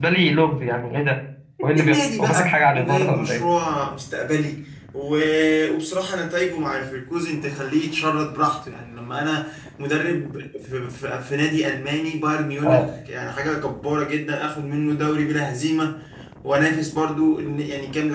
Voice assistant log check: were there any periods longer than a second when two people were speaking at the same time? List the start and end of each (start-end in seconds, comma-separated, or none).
1.6-3.4